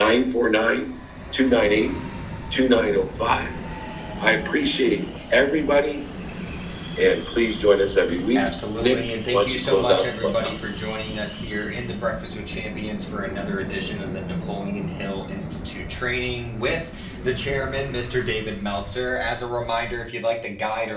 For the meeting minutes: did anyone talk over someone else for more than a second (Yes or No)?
Yes